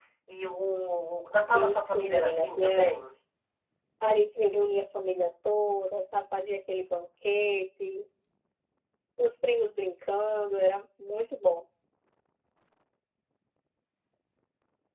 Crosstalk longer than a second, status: present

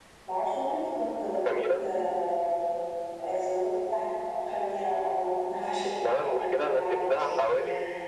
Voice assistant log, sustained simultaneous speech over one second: present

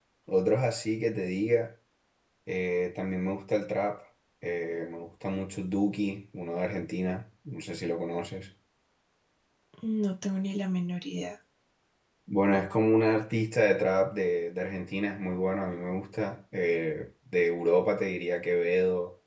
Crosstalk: none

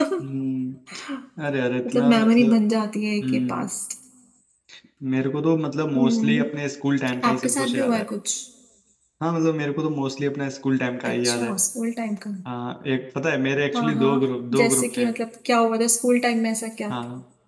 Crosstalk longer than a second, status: present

